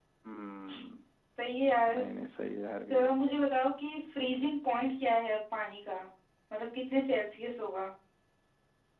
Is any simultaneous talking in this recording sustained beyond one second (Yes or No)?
No